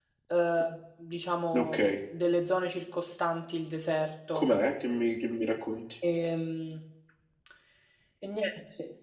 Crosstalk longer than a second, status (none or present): none